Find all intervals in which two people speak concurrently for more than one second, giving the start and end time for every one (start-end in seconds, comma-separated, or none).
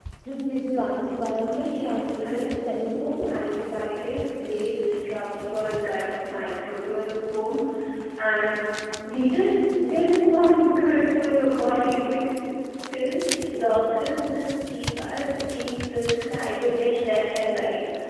1.6-3.4